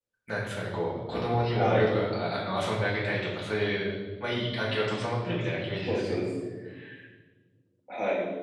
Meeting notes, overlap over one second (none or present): none